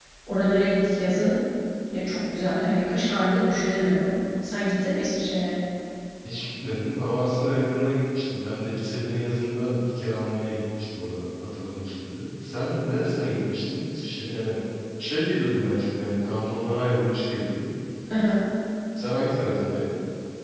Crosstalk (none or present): none